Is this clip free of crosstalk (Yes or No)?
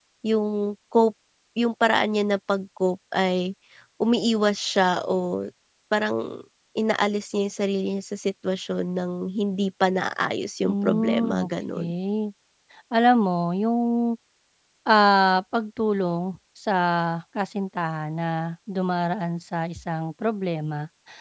No